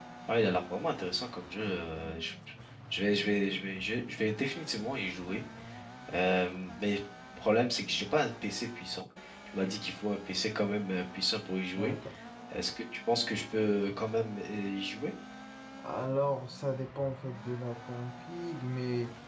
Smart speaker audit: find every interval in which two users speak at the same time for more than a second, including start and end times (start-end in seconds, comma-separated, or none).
none